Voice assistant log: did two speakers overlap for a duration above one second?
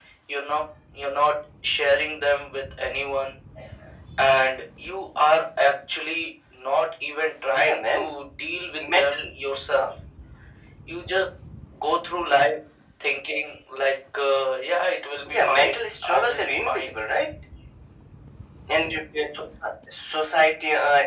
Yes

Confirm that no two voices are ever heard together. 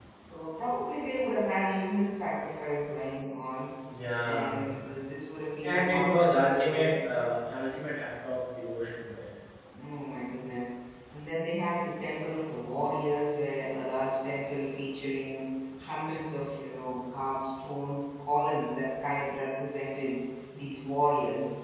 No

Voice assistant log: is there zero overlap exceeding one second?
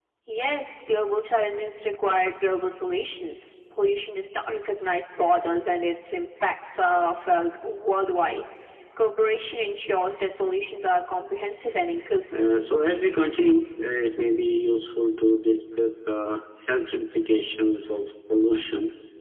Yes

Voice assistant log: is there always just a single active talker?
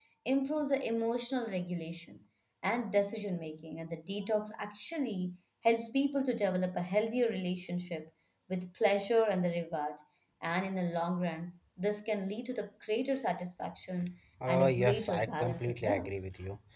No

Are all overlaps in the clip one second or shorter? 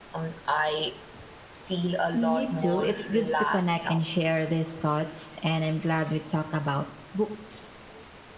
No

